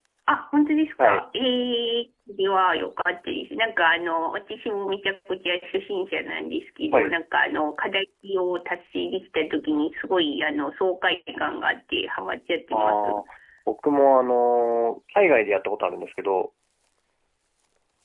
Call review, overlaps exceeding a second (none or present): none